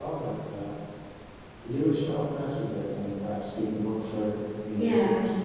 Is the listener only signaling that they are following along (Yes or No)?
No